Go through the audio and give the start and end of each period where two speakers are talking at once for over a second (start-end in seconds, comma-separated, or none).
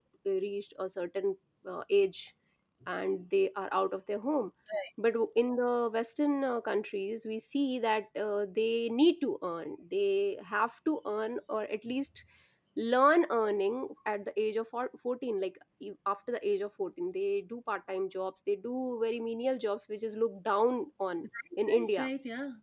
none